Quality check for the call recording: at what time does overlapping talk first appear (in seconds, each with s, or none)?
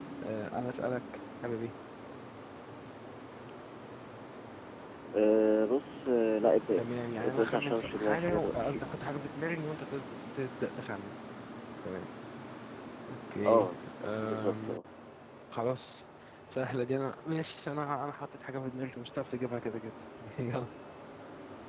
6.8 s